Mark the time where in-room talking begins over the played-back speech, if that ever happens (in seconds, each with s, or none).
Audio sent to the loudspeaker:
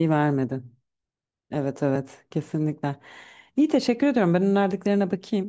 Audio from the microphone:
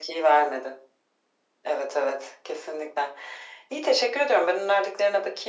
none